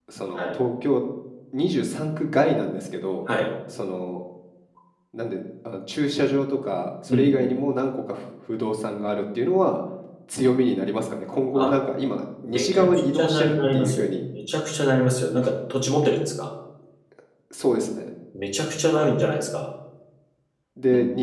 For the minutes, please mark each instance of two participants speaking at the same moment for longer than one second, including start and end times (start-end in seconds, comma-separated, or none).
12.4-14.1